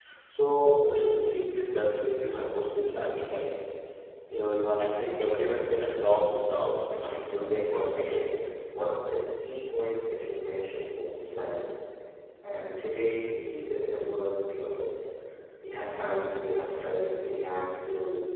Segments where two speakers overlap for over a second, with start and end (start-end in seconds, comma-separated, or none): 7.0-8.3